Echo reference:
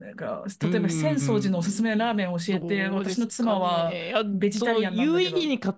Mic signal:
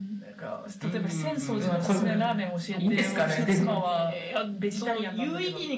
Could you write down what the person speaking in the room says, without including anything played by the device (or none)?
ー、まあこれ、いいんですかね。で、